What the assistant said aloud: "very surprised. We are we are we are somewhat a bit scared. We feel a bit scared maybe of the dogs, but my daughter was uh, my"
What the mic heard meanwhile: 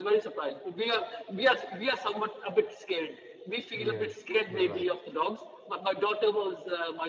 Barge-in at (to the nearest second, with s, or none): 4 s